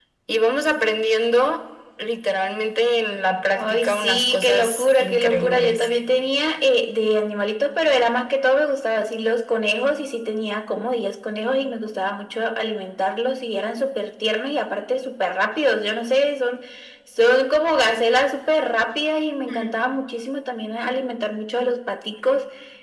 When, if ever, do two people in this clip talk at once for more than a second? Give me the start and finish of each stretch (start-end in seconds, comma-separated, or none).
3.5-5.9